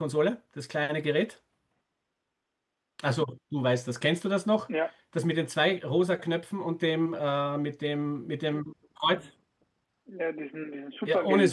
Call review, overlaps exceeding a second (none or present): none